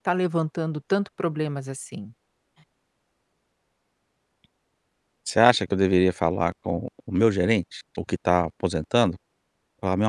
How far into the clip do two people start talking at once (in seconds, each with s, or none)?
none